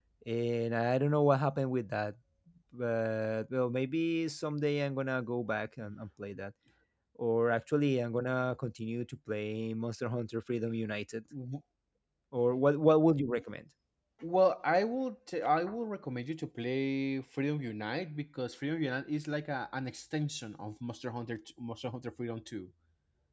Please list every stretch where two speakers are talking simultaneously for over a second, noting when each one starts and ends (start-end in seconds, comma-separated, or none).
none